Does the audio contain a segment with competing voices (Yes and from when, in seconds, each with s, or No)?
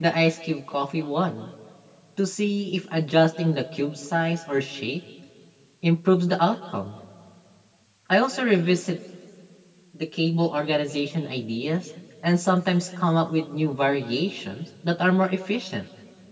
No